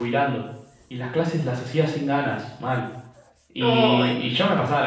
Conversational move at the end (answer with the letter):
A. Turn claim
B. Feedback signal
B